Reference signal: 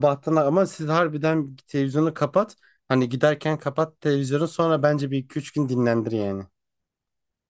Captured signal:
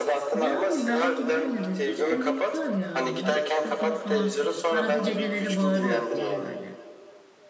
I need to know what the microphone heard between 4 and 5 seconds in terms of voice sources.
both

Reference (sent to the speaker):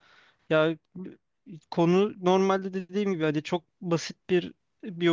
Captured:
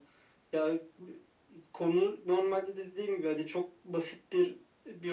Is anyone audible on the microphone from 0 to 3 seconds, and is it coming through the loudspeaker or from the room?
echo only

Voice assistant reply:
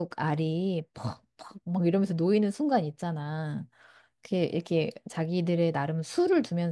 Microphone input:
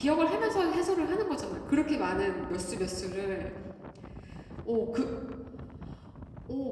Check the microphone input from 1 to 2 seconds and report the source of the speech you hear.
user only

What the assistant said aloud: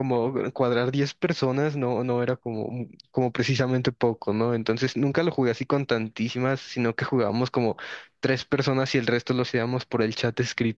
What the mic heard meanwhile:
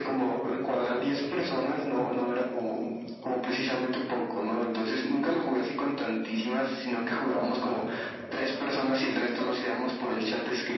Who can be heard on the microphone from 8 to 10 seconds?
echo only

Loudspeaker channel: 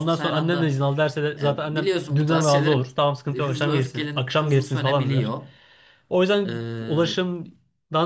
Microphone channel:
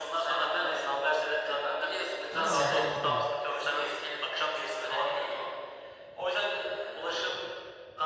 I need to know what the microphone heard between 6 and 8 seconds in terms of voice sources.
echo only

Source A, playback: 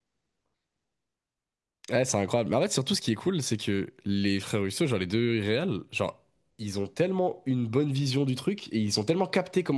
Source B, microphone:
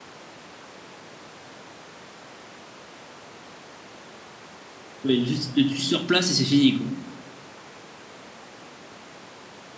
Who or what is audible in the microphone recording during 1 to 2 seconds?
neither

